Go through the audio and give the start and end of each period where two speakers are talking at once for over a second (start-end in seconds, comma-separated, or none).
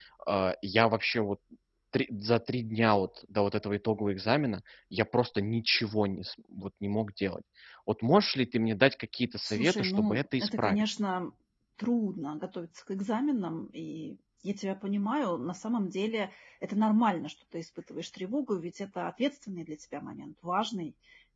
9.4-10.9